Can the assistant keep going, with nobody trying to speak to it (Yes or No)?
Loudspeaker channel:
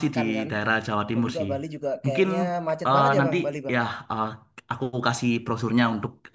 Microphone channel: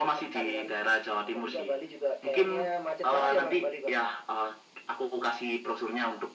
Yes